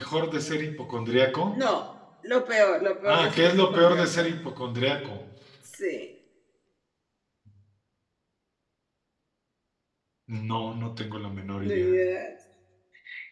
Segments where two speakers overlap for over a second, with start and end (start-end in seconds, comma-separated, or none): 3.1-4.3